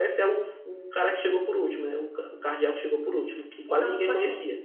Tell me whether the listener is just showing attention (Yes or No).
No